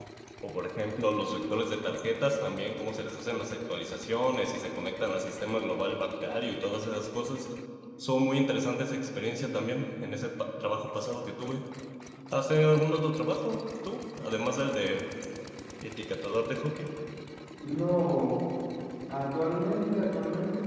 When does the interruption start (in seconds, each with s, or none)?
none